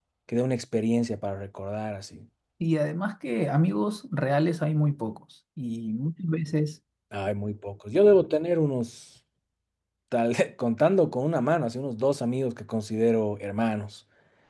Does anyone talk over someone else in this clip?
No

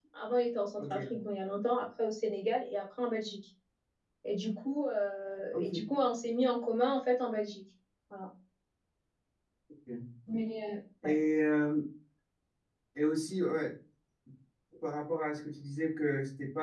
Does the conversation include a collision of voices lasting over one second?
No

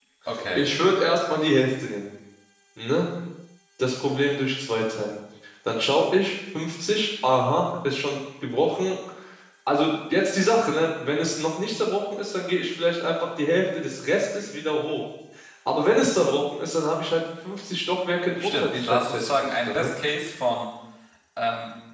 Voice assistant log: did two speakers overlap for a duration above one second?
Yes, from 18.2 s

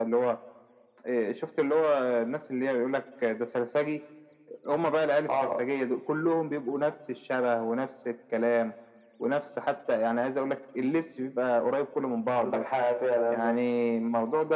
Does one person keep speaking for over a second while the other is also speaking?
No

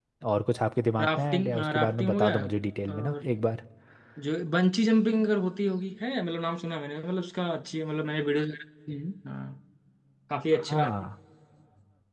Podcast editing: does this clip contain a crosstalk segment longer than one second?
Yes, from 1.0 s

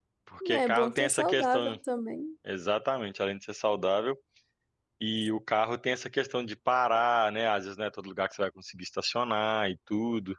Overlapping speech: Yes, from 0.5 s

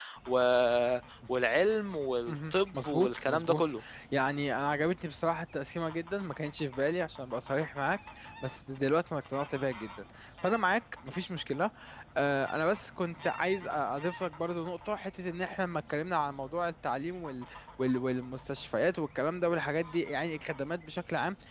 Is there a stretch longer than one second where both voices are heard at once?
Yes, from 2.3 s

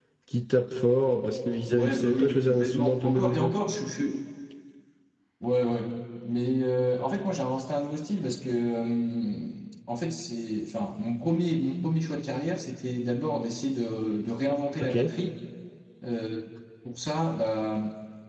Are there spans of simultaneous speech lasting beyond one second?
Yes, from 1.7 s

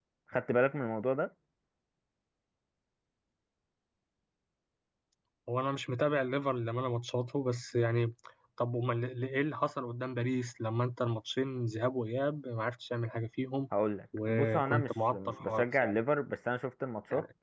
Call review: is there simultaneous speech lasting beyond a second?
Yes, from 14.3 s

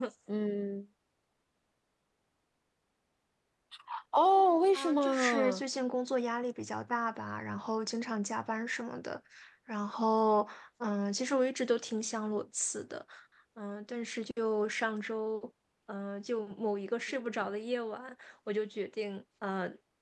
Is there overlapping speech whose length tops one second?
Yes, from 4.4 s

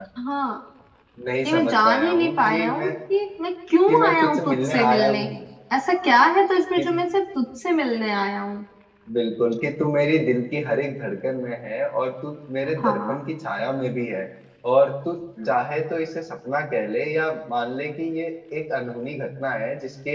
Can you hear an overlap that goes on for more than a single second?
Yes, from 1.5 s

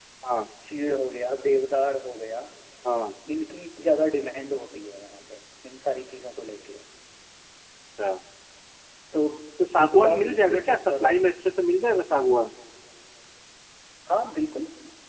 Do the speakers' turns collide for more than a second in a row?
Yes, from 9.8 s

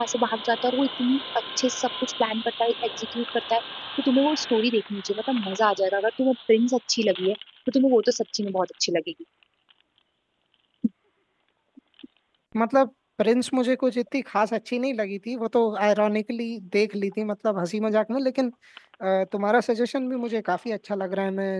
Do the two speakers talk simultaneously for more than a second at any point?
No

